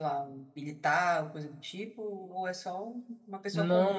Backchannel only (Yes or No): No